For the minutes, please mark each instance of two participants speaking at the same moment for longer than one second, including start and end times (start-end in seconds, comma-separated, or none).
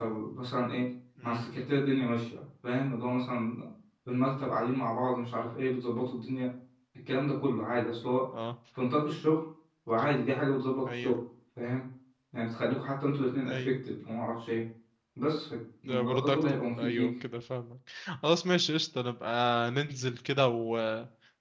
15.9-17.1